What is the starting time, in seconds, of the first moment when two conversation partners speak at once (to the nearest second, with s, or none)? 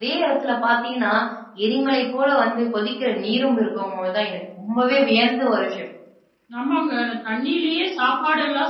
none